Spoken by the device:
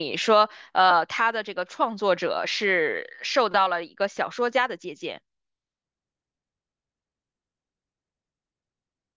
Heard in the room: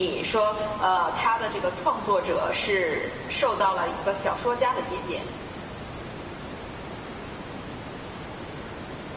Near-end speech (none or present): none